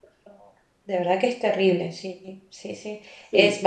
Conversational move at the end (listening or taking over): listening